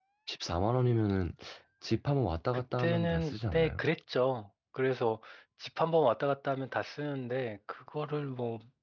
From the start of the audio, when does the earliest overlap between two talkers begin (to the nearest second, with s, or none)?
3 s